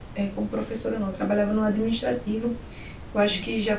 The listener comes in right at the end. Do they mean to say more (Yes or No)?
No